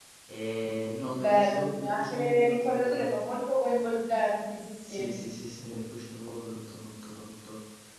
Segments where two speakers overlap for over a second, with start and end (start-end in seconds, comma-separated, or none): 1.1-3.2